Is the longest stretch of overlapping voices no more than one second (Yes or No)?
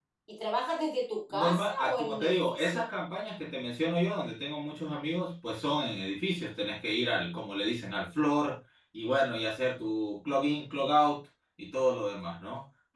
No